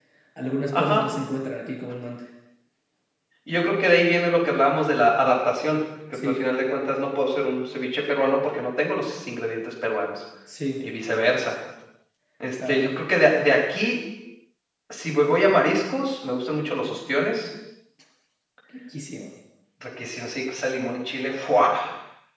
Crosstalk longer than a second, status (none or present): none